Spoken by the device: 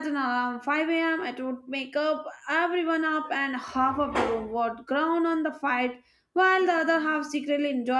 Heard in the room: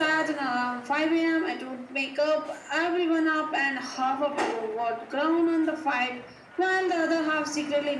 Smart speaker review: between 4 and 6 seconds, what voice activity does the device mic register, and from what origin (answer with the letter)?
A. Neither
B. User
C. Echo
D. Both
C